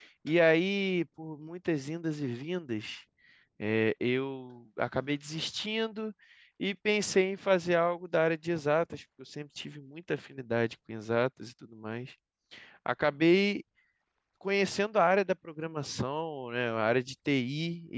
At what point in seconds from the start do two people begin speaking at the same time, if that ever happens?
none

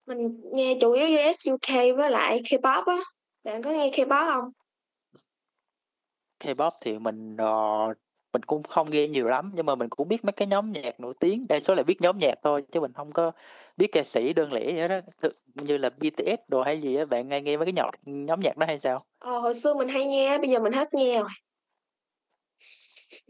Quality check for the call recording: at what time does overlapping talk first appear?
none

